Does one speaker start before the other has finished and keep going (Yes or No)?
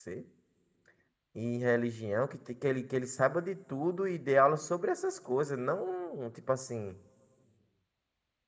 No